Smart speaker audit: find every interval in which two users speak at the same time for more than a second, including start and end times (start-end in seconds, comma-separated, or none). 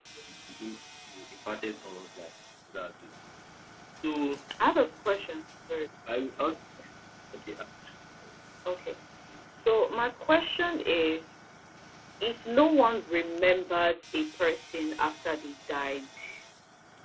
none